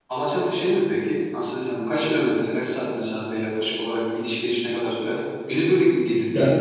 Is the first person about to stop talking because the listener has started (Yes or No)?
No